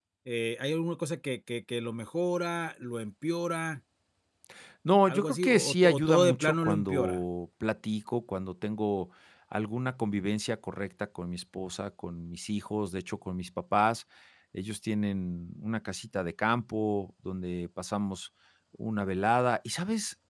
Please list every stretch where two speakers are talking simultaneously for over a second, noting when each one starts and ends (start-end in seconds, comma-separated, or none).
5.1-7.2